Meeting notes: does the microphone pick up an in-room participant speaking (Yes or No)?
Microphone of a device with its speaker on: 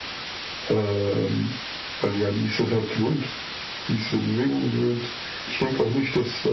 No